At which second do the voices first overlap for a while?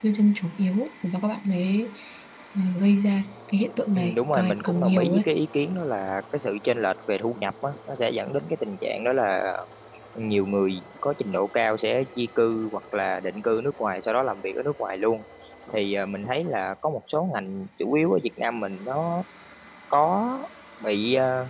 3.9 s

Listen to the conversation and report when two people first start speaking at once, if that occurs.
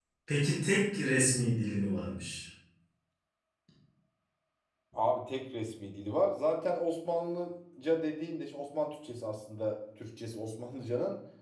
none

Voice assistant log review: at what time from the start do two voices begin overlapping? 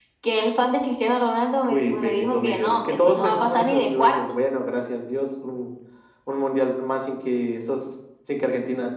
1.7 s

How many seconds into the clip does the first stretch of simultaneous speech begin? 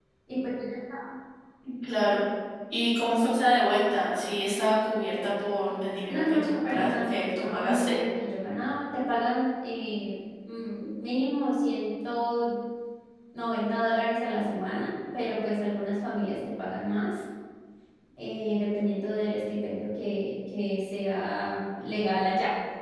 6.1 s

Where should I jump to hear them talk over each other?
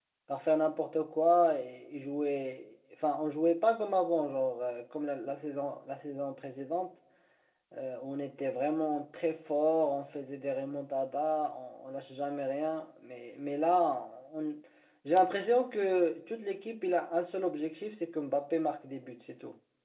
none

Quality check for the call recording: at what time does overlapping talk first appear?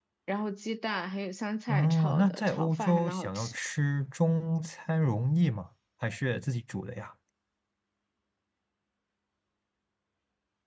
1.7 s

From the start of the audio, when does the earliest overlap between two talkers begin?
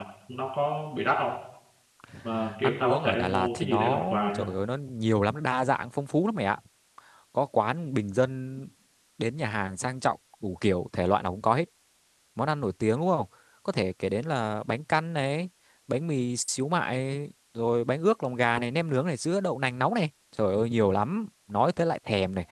2.6 s

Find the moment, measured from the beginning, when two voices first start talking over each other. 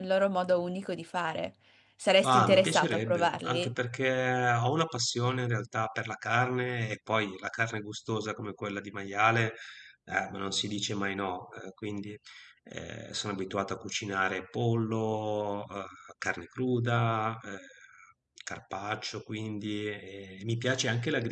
2.2 s

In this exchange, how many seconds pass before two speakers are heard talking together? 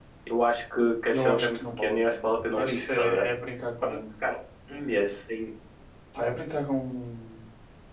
1.1 s

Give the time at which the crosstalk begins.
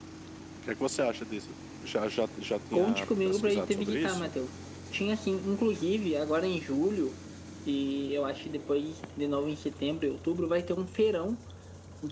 2.7 s

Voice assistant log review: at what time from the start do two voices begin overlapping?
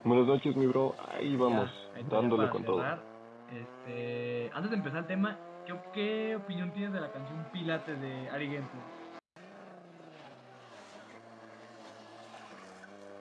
1.3 s

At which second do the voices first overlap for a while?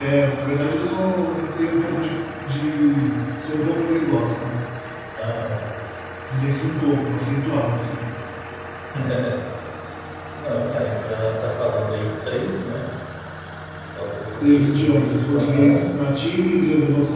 14.4 s

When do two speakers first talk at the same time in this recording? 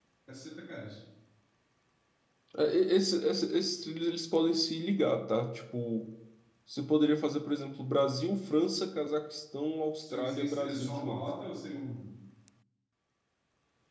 10.0 s

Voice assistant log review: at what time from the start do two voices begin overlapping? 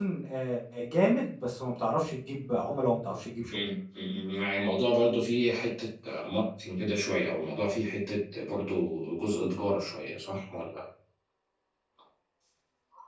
none

